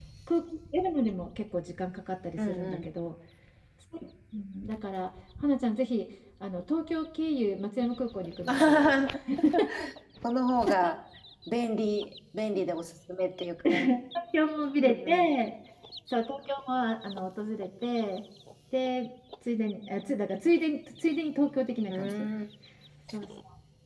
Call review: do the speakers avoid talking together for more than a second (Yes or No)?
Yes